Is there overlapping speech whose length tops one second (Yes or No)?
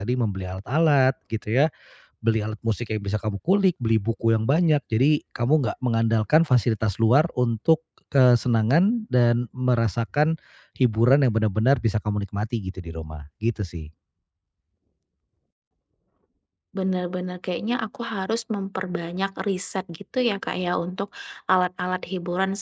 No